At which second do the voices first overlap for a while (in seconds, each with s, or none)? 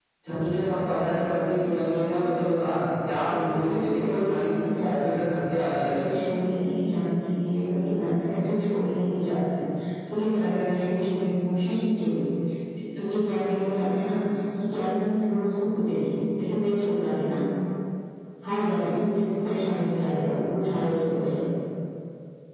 3.3 s